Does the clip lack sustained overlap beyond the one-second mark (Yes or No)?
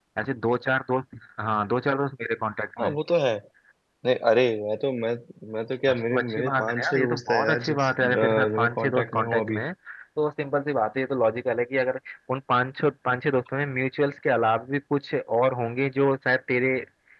No